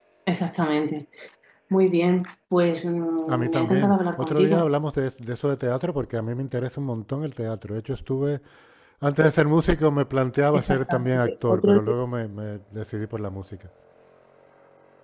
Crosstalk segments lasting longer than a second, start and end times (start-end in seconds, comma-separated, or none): 3.3-4.7, 10.5-11.8